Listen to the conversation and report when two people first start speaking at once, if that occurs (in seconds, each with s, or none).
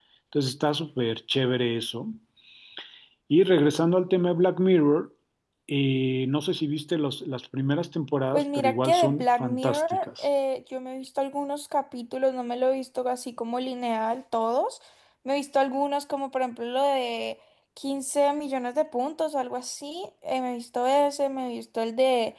8.3 s